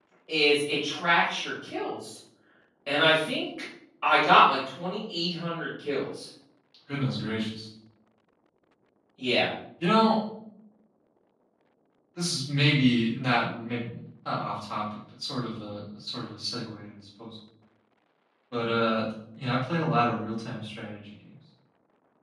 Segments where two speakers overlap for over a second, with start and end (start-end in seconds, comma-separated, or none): none